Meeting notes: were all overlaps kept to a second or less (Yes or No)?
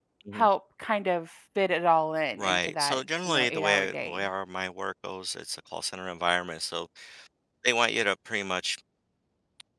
No